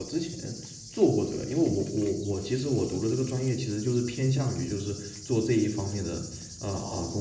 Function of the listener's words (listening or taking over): taking over